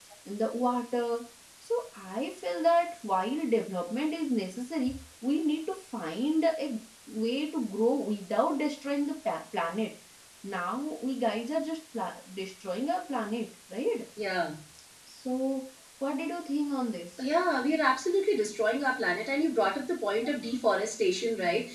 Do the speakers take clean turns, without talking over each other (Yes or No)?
Yes